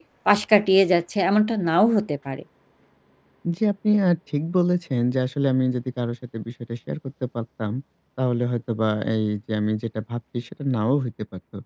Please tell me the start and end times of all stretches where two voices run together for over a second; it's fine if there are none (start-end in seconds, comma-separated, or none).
none